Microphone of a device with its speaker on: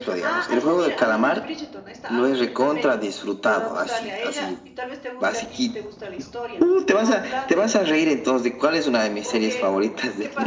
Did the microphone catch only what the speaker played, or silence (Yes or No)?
No